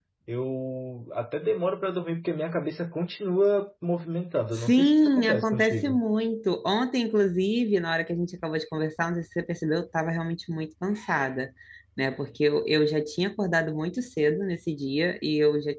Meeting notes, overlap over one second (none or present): present